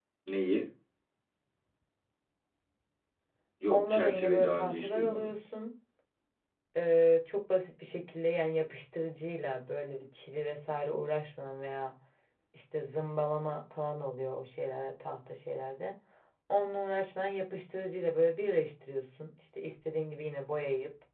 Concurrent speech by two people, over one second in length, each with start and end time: 3.7-5.3

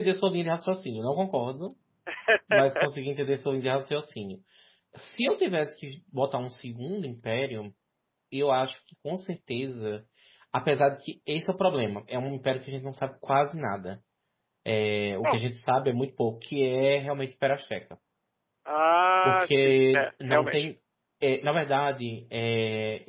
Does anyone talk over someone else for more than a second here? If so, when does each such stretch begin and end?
19.2-20.7

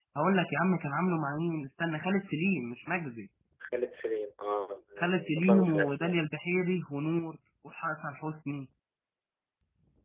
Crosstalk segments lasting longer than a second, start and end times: 5.0-6.2

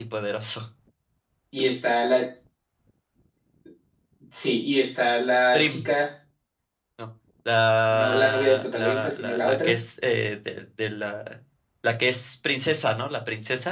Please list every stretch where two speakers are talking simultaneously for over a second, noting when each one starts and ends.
7.9-9.8

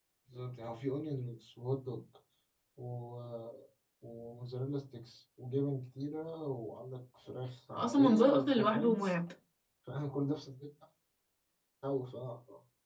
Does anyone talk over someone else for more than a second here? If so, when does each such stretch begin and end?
7.7-9.1

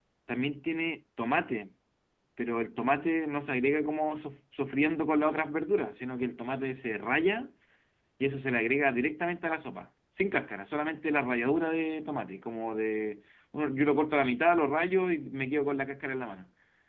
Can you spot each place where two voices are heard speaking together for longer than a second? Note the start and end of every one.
none

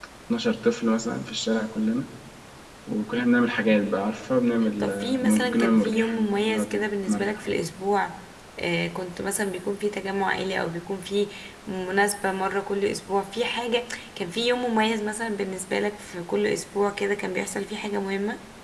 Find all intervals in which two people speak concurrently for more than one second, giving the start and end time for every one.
4.8-7.4

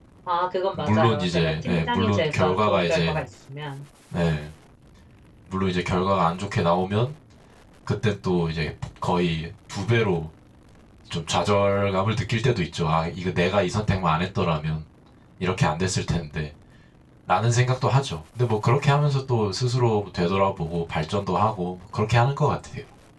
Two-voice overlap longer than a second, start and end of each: 0.7-3.2

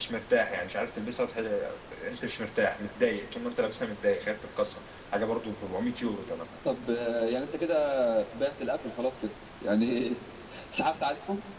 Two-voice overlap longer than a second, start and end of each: none

